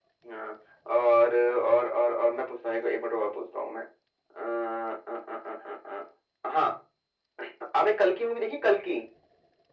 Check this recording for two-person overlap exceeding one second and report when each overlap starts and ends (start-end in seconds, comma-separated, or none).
none